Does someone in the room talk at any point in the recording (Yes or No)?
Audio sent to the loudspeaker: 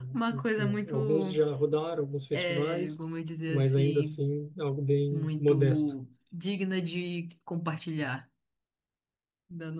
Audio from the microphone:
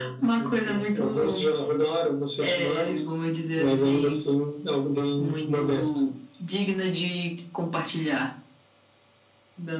No